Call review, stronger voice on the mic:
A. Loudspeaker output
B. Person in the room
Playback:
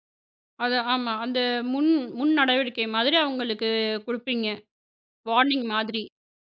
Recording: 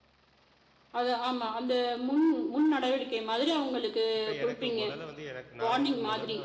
A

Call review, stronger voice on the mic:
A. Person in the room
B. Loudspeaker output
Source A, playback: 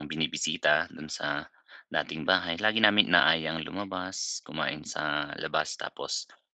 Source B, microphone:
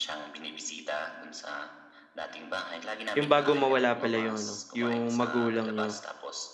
A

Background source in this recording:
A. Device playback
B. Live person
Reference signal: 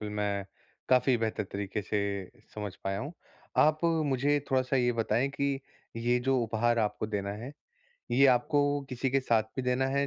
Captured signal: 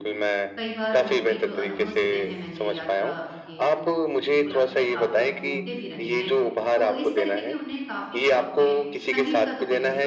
B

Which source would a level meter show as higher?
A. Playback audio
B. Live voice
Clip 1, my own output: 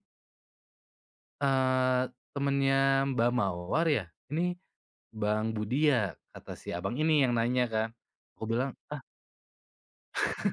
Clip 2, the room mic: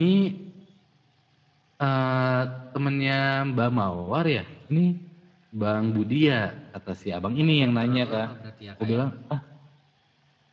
A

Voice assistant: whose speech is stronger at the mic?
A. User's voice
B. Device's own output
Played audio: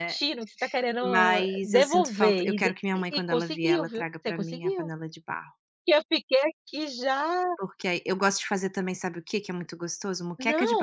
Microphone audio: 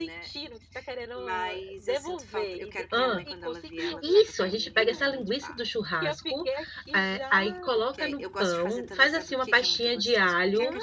A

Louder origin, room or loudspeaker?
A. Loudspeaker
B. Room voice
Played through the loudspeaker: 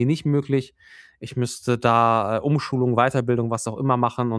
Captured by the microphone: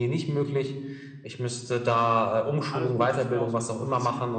A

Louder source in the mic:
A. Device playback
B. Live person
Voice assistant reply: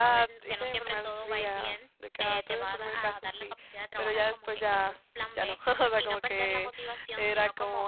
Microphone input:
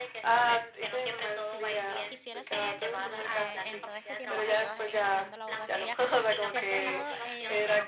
A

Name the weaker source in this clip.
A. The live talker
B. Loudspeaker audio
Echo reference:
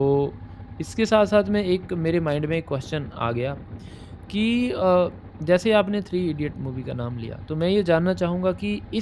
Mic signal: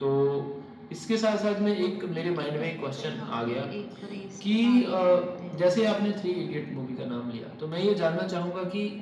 A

